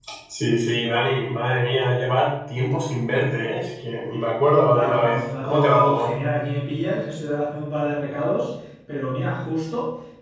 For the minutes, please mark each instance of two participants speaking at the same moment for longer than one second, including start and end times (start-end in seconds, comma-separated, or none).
4.7-6.1